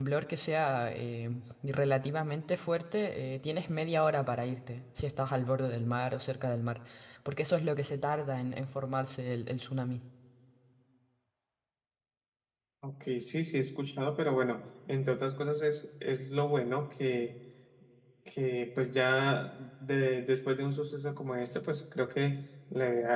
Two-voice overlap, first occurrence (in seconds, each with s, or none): none